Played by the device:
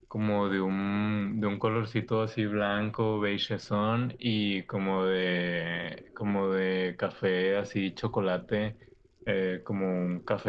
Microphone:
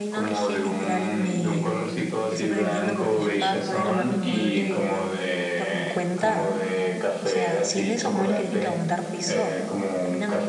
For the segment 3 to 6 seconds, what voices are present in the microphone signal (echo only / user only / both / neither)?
both